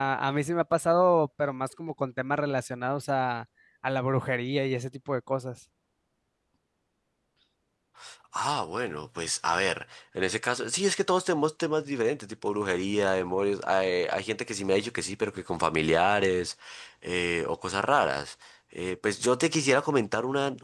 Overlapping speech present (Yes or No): No